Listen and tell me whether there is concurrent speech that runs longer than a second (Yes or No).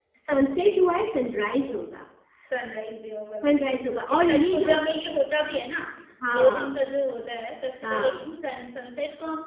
Yes